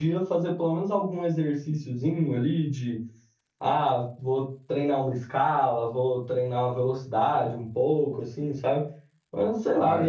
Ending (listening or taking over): listening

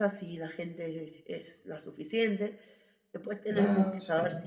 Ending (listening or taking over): listening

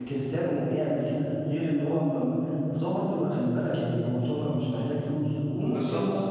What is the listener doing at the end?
listening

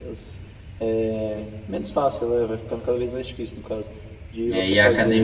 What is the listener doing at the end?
taking over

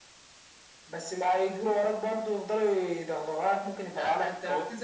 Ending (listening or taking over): taking over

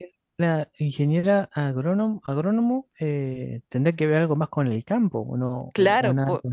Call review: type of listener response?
taking over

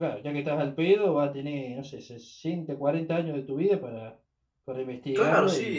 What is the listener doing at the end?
taking over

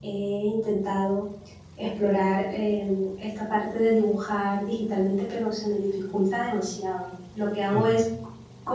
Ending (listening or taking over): listening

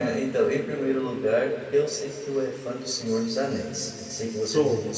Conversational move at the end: listening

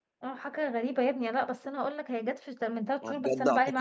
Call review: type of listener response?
taking over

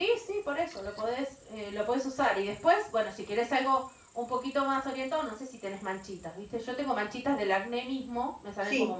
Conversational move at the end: taking over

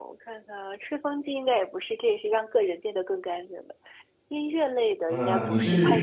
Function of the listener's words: taking over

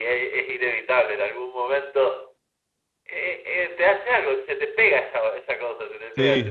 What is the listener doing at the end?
taking over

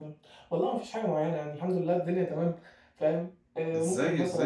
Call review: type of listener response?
taking over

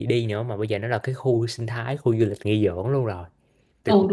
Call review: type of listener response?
taking over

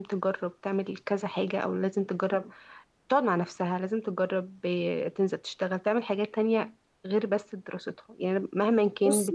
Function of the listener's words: listening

